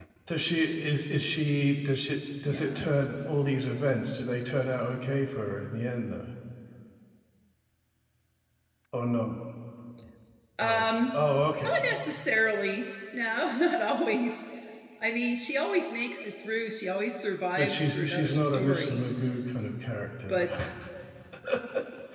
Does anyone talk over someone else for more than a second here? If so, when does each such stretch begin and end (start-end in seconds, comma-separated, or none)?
17.6-19.0